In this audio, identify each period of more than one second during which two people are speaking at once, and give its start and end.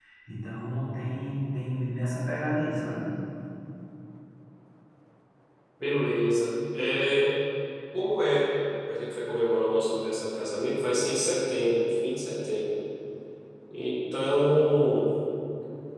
none

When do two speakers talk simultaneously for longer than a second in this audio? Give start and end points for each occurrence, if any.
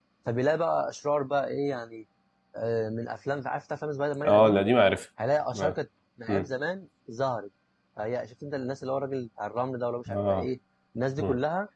none

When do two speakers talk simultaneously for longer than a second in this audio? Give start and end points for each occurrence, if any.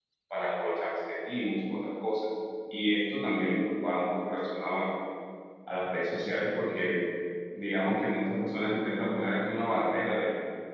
none

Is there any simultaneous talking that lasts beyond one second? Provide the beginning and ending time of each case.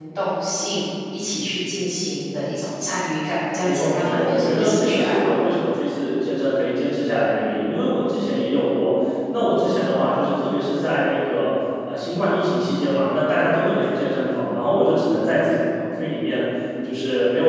3.6-5.3

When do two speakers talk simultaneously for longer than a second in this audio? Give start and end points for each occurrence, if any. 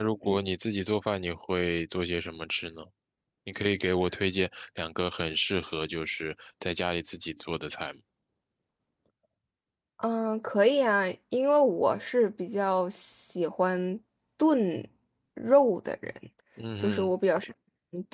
none

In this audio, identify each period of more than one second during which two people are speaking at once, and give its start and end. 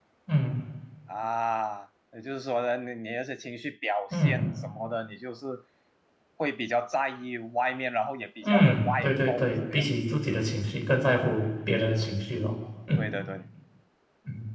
8.4-9.8

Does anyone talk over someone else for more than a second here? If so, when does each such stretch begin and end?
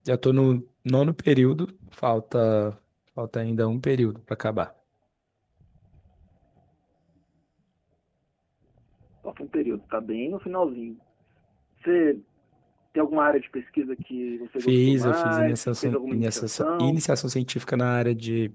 14.6-17.0

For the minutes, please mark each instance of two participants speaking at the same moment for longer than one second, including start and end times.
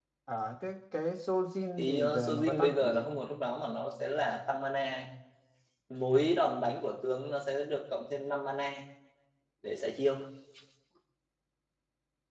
1.8-3.0

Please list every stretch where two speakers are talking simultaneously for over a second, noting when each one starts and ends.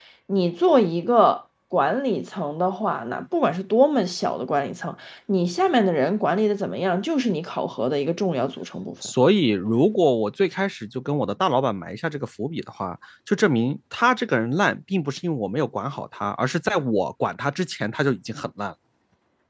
none

